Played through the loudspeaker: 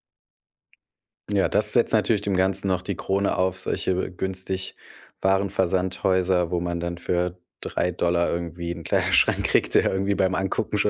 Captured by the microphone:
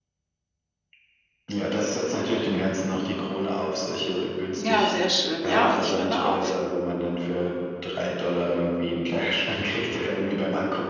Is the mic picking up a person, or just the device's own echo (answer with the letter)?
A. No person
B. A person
B